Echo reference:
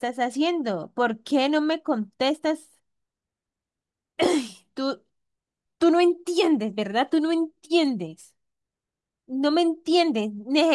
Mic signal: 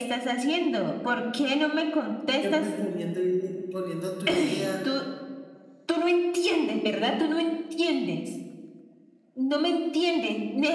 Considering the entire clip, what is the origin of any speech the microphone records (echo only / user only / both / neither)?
both